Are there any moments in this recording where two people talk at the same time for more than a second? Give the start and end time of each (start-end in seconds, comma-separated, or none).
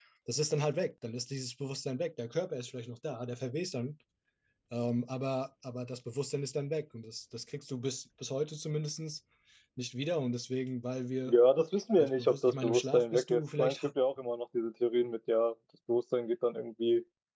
12.0-13.8